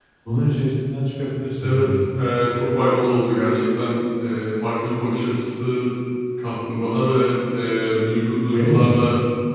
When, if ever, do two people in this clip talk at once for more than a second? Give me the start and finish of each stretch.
none

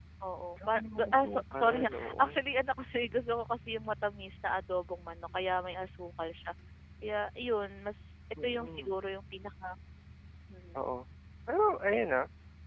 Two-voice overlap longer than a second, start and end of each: 0.7-2.2

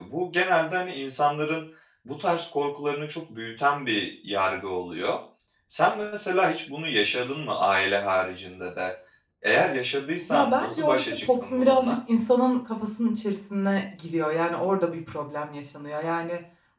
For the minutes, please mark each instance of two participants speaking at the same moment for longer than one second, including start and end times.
10.3-12.0

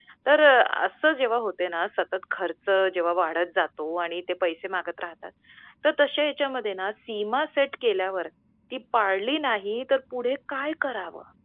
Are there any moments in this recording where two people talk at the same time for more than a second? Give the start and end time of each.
none

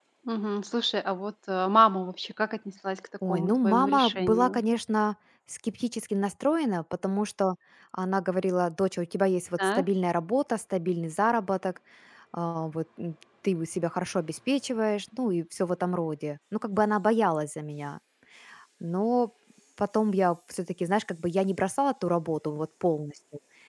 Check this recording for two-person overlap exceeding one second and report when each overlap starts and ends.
3.3-4.6

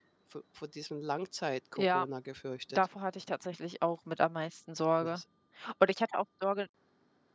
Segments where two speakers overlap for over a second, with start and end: none

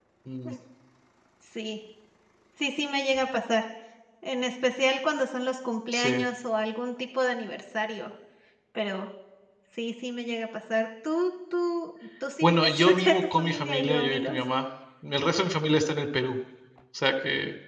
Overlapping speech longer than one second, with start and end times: 12.4-14.4

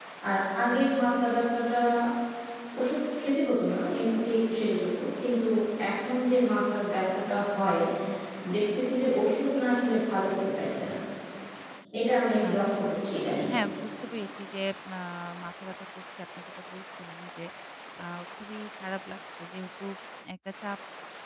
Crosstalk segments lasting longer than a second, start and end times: none

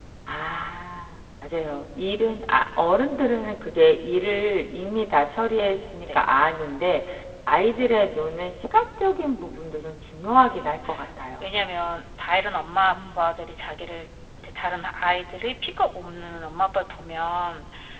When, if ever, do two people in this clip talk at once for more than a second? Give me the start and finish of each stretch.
none

